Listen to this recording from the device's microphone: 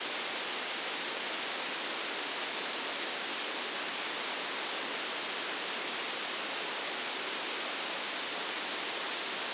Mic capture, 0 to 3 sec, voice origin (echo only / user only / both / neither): neither